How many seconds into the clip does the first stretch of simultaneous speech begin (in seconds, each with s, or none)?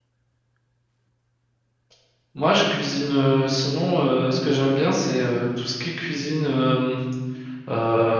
none